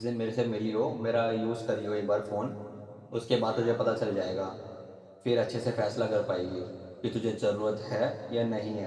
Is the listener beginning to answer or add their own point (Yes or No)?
No